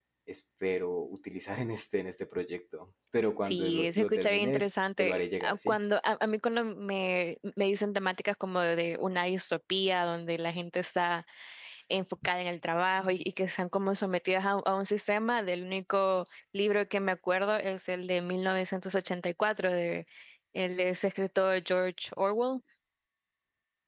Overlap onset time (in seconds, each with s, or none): 3.4 s